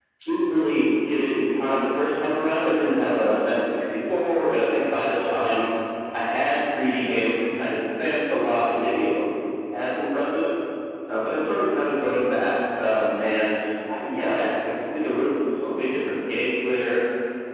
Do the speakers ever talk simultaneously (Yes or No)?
No